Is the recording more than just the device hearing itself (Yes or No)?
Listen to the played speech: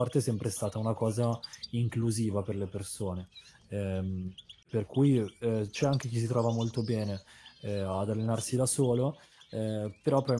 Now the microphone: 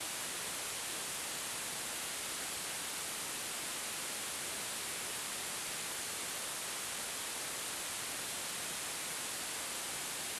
No